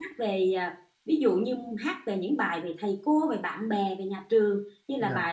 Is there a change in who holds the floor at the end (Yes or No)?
No